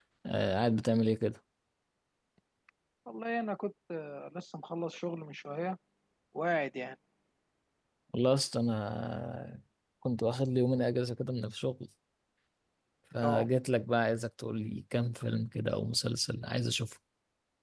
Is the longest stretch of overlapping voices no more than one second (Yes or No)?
Yes